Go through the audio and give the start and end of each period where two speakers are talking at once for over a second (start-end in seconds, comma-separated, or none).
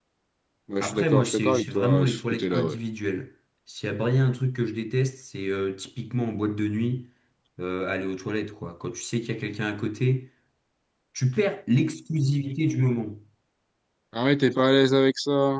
0.8-2.8